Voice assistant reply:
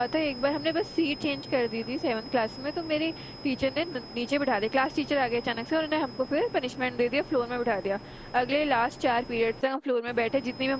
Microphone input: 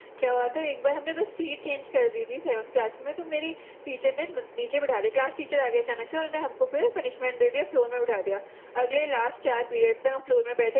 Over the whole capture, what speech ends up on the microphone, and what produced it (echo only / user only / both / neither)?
echo only